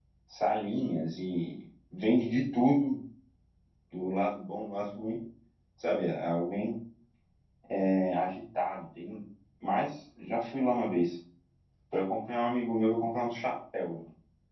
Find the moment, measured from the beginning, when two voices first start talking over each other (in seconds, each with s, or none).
none